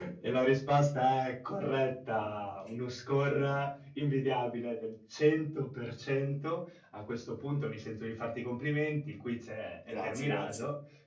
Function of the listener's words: listening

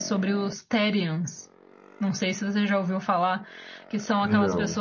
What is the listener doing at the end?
listening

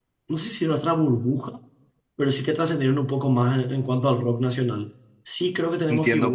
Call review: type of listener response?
taking over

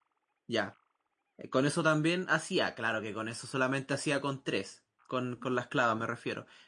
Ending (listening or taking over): listening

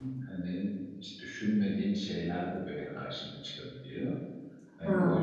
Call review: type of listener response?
listening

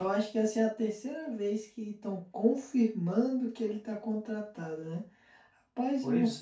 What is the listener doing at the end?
listening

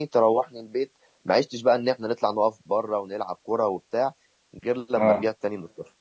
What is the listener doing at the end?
listening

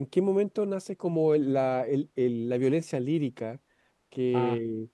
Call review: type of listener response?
listening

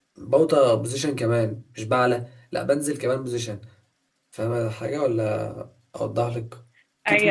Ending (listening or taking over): taking over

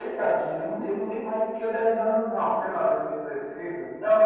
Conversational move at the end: taking over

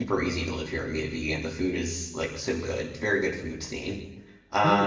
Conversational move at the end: taking over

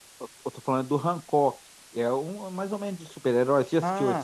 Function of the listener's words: taking over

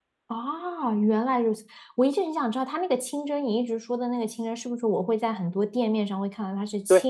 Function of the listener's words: listening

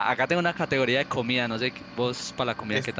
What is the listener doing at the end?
taking over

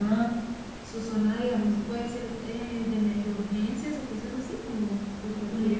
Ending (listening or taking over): taking over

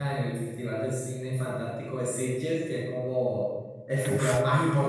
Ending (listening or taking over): listening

